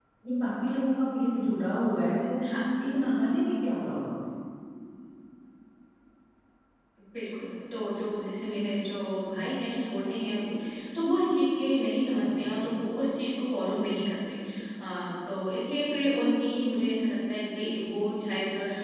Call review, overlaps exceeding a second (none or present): none